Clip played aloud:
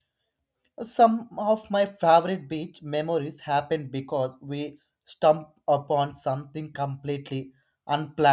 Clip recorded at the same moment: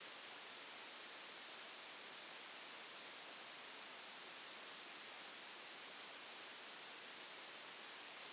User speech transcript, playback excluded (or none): none